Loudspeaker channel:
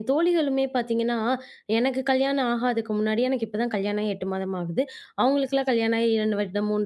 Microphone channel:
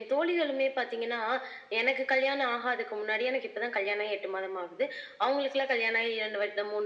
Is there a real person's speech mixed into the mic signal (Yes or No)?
No